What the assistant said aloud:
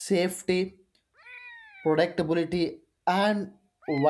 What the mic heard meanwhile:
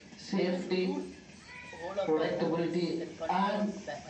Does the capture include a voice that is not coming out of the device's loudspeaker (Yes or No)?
Yes